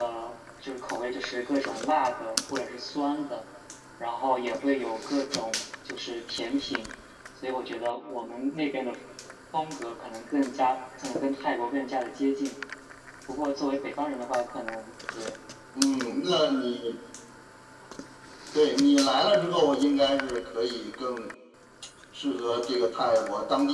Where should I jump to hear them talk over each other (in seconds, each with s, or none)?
none